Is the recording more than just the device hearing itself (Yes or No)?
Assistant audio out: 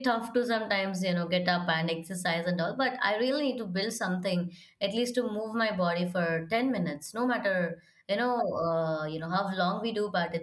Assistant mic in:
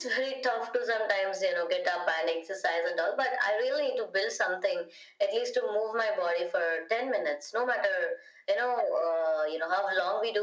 No